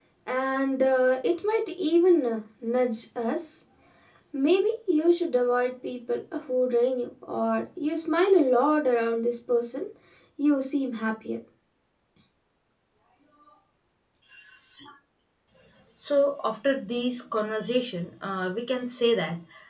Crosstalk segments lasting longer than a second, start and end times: none

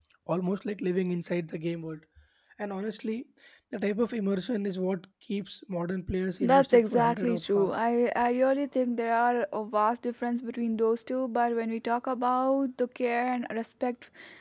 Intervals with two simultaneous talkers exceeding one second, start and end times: 6.4-7.8

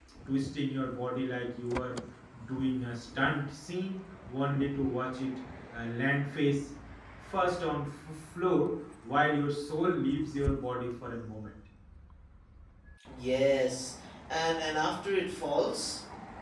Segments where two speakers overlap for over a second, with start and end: none

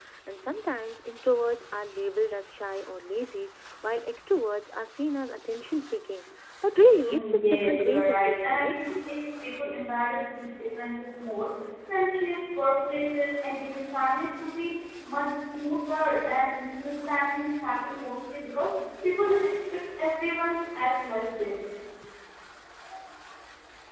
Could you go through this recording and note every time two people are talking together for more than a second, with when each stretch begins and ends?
7.0-8.8

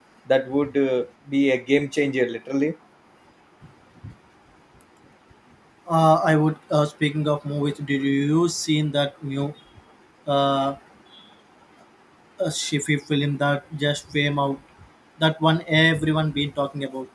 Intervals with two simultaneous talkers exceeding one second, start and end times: none

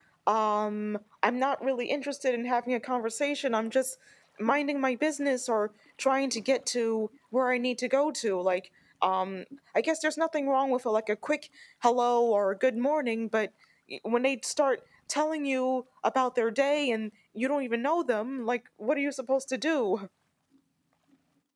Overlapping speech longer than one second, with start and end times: none

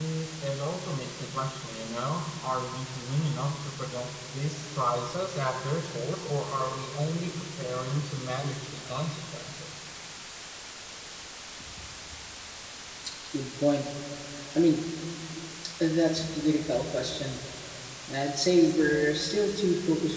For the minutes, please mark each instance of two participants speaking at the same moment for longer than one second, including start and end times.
none

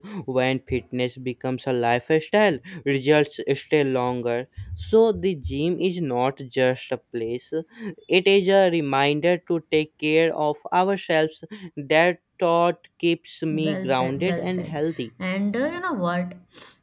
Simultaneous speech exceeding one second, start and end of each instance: 13.5-14.8

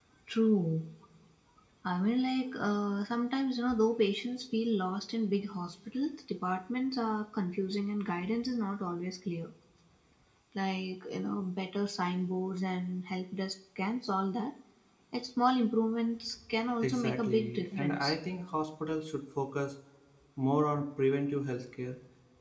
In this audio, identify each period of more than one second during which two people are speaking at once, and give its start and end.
16.8-18.1

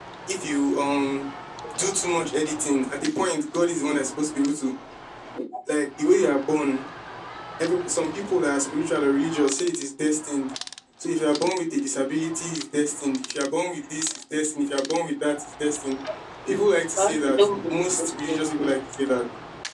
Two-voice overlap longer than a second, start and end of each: 17.0-18.7

